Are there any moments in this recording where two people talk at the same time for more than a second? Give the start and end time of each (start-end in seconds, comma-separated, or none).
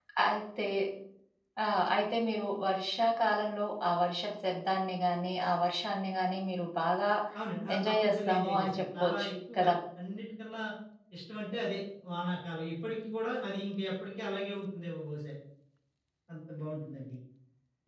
7.8-9.7